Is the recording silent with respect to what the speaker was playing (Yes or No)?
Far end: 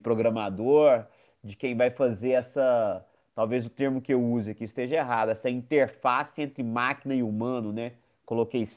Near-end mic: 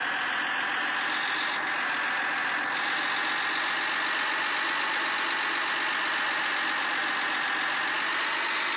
Yes